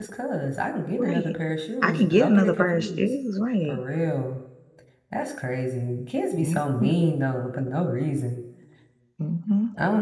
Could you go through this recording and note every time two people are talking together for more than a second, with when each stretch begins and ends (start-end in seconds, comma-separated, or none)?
1.8-3.1